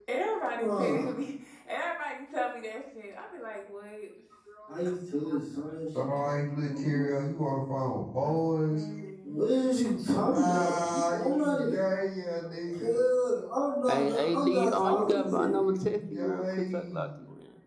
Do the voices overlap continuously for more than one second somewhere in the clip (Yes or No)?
Yes